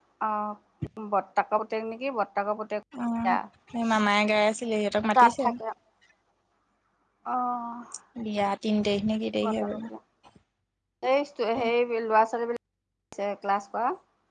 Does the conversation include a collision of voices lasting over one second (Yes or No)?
No